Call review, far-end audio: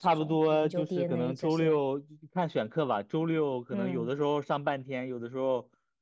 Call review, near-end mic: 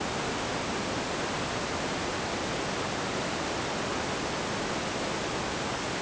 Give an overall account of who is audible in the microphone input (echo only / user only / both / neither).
neither